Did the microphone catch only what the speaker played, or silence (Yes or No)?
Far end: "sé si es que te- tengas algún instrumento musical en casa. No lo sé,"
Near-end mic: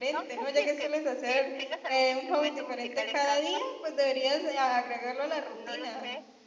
No